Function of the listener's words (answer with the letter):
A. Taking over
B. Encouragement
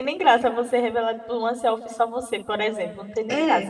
A